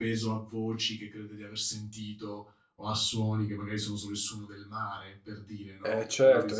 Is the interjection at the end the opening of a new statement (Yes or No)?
Yes